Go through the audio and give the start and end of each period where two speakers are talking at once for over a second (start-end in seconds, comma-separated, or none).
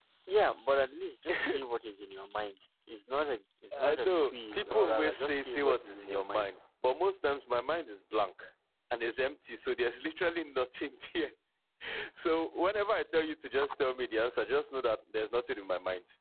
3.8-6.5